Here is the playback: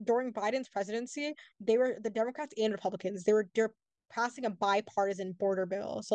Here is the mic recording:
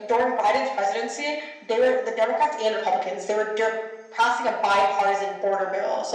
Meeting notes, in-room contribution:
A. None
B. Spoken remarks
A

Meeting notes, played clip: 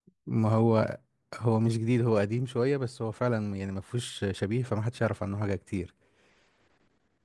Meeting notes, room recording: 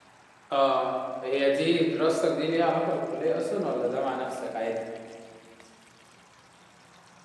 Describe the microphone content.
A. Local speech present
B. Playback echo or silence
A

